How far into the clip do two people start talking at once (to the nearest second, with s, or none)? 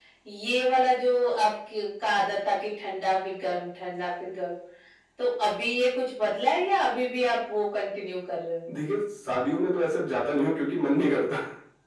none